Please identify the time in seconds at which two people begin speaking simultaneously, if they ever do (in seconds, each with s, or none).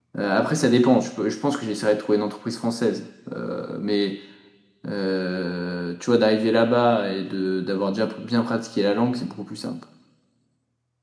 none